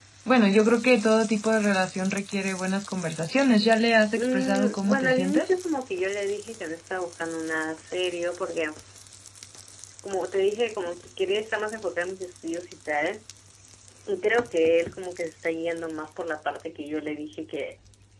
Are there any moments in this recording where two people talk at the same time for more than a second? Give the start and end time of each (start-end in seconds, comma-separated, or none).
4.2-5.5